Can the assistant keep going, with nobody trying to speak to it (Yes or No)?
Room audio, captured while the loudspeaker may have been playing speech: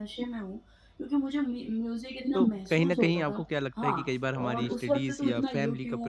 No